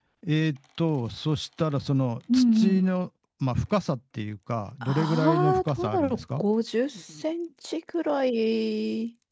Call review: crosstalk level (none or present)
present